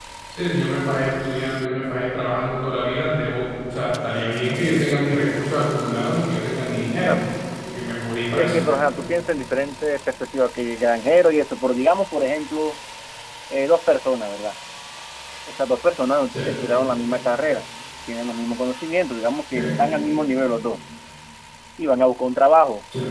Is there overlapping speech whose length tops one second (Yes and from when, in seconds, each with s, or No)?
No